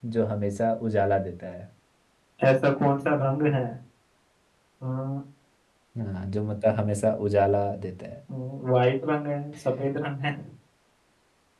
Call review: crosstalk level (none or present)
none